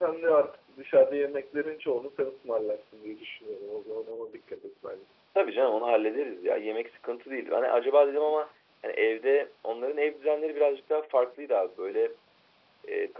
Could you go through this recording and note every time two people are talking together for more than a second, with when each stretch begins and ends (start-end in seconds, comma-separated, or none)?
none